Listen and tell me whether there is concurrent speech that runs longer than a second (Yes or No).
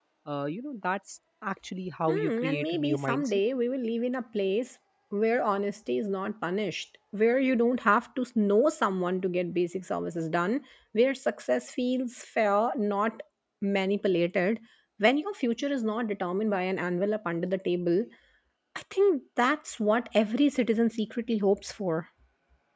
Yes